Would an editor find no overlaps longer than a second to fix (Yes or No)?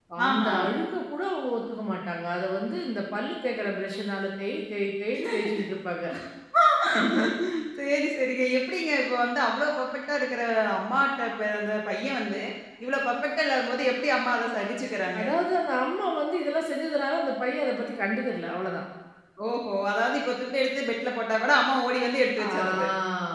Yes